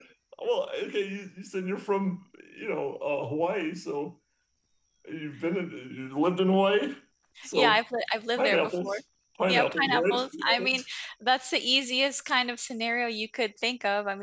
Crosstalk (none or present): present